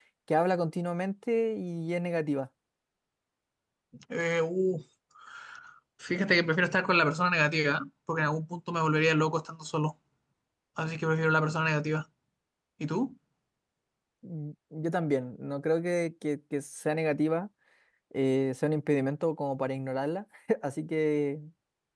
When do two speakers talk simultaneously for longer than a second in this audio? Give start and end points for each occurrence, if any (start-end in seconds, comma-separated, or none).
none